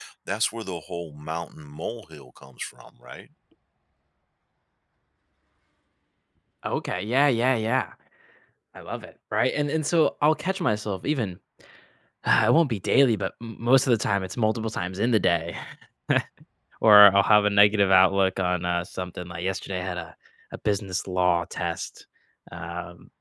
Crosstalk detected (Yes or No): No